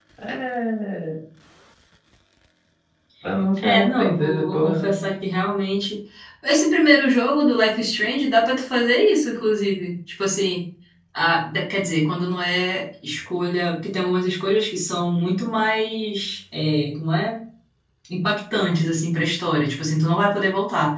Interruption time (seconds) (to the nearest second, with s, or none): 4 s